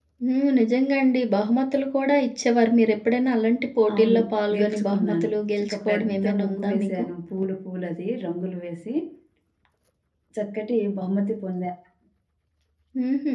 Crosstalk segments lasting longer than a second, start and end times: 4.5-7.0

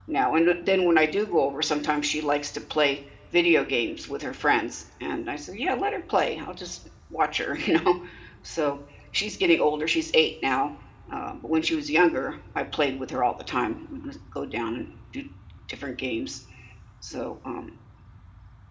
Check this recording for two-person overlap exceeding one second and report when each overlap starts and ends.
none

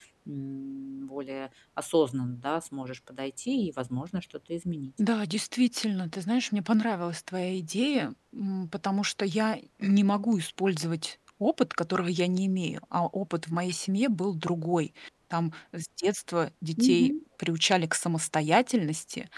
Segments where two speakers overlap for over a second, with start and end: none

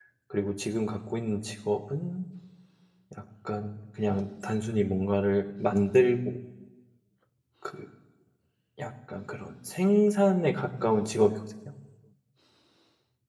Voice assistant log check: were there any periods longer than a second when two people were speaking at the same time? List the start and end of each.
none

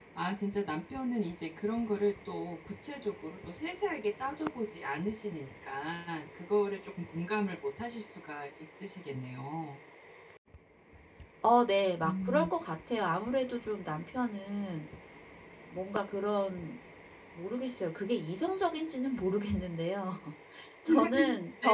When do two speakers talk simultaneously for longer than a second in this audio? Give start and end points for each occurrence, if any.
none

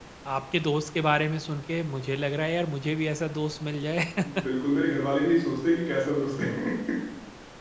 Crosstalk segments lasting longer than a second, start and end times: none

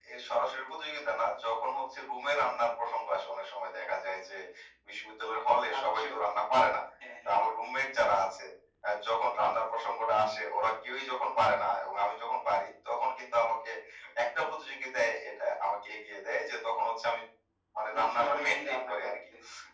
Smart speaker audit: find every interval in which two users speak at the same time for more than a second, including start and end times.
17.9-19.1

